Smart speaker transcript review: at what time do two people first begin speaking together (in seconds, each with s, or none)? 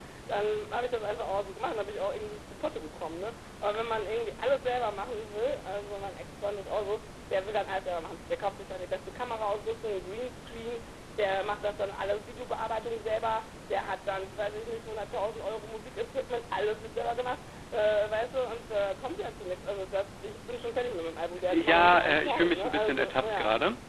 21.5 s